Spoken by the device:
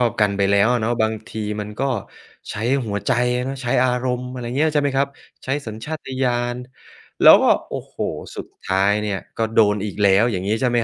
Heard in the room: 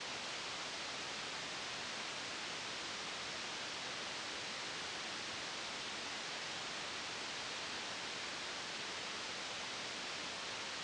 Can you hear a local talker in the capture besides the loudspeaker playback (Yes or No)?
No